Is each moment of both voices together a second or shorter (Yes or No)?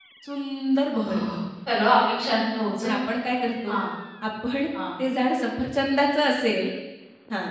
Yes